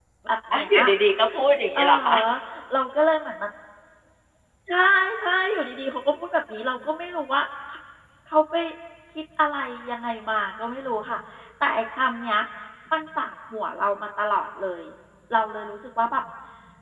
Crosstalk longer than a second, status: none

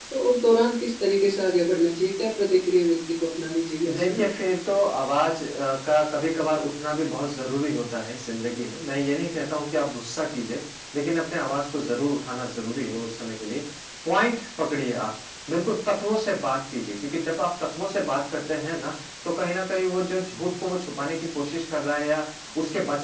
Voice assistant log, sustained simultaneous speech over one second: none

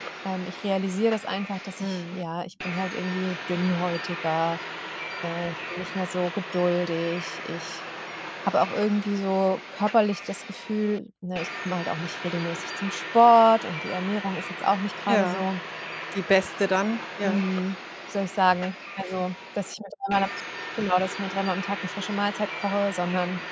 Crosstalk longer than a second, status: none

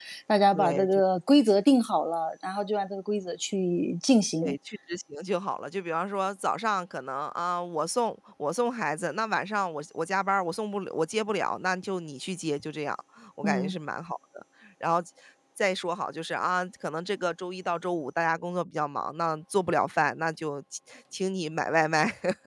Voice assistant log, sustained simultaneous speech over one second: none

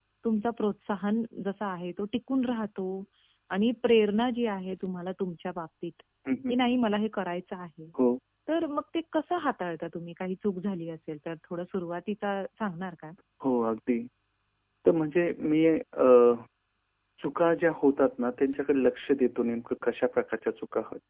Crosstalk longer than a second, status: none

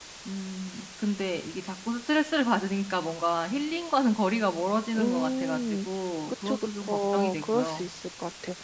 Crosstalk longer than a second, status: present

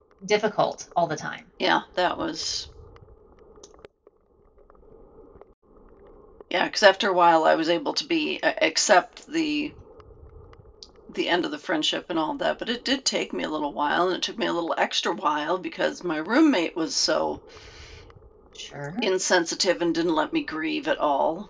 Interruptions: none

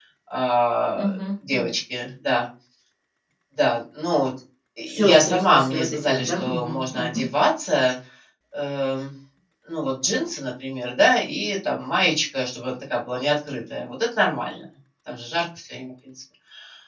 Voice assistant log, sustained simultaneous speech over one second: present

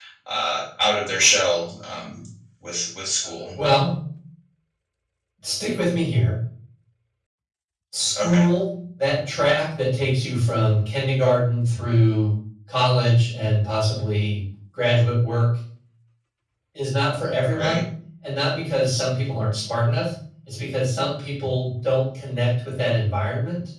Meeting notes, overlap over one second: none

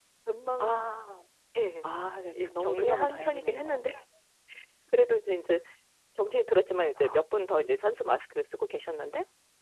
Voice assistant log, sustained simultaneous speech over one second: present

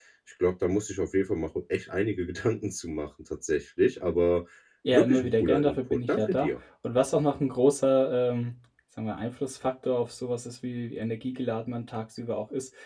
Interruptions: present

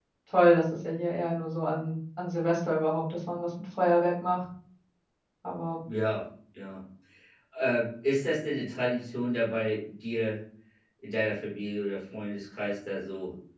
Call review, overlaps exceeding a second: none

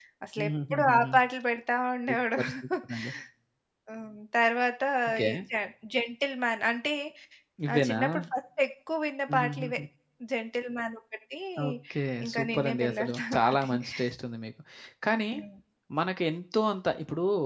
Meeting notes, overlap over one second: present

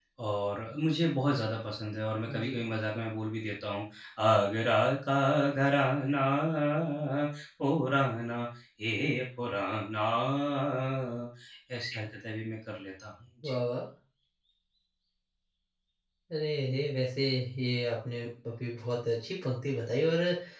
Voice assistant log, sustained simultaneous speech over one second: none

